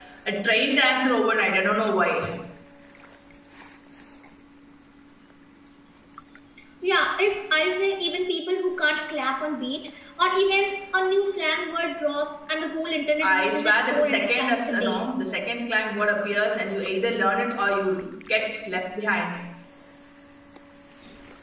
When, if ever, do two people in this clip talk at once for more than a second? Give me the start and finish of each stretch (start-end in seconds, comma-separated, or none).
13.2-15.1